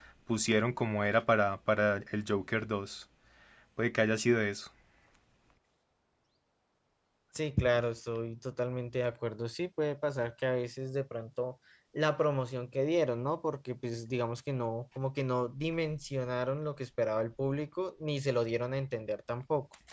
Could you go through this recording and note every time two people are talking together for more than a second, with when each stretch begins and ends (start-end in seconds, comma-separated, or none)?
none